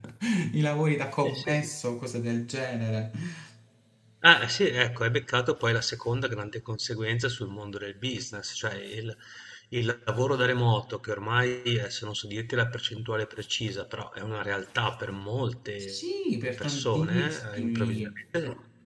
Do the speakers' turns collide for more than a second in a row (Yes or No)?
Yes